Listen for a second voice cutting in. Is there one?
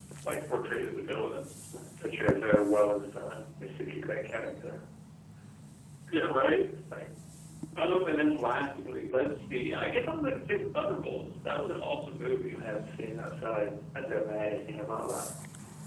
No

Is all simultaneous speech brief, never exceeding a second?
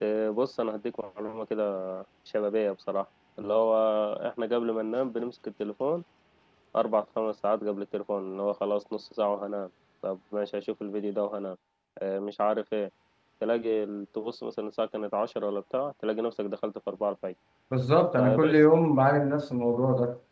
Yes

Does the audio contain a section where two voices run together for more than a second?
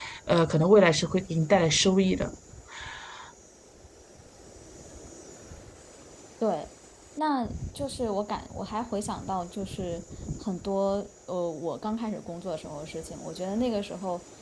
No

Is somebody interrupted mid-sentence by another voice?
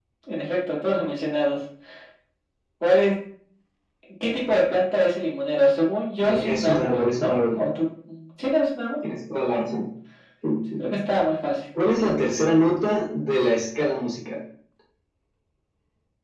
Yes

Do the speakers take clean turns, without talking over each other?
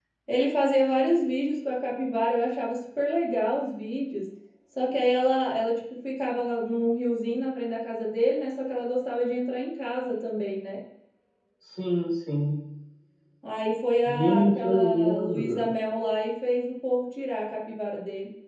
No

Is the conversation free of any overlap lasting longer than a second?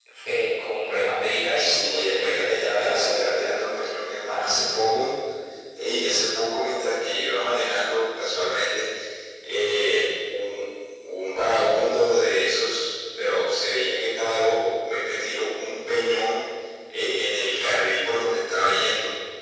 No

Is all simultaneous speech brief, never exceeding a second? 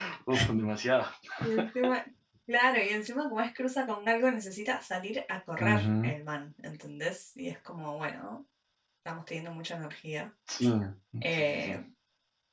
Yes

